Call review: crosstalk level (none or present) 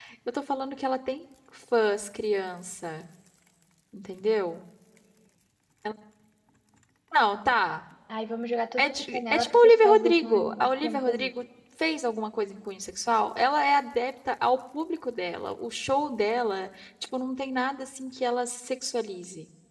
present